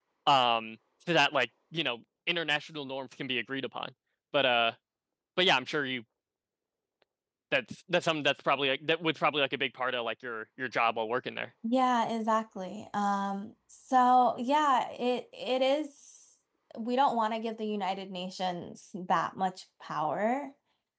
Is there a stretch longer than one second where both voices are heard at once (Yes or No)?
No